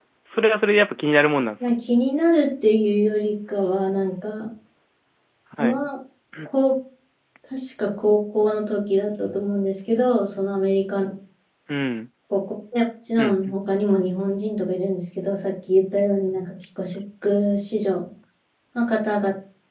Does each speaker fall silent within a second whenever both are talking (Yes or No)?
Yes